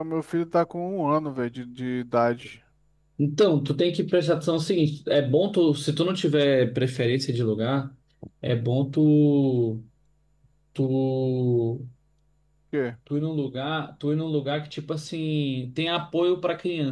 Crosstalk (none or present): none